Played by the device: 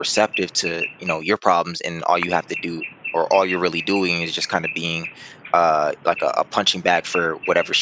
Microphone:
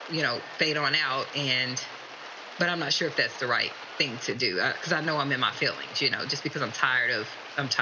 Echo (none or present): none